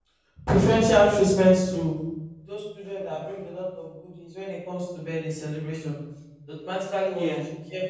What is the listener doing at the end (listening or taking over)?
listening